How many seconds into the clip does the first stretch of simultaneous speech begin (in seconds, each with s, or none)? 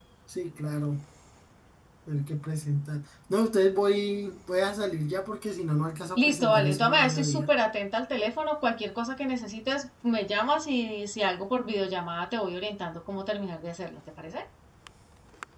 6.2 s